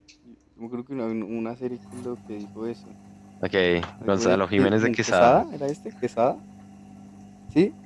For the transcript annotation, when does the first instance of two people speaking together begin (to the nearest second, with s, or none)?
4 s